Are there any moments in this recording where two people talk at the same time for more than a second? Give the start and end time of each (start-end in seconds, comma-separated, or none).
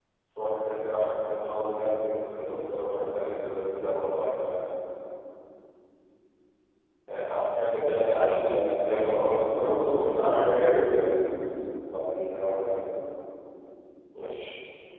9.5-11.1